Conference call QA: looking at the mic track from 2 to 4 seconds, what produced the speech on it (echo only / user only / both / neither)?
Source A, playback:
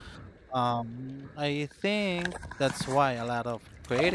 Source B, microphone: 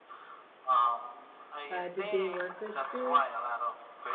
both